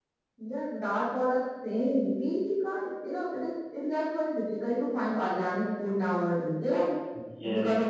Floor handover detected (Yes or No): No